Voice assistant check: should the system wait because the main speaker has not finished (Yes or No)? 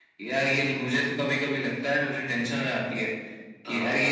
Yes